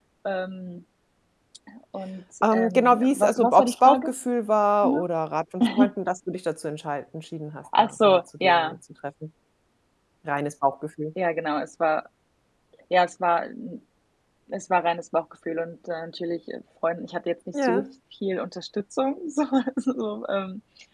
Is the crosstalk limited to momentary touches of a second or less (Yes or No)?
No